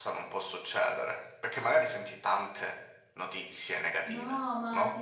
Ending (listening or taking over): taking over